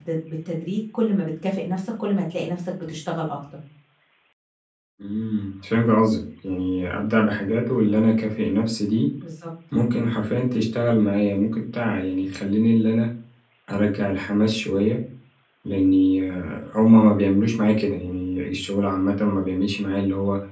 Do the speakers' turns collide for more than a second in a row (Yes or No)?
No